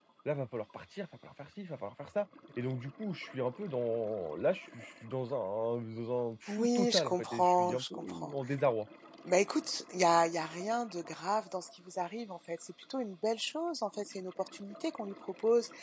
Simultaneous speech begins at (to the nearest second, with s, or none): 6 s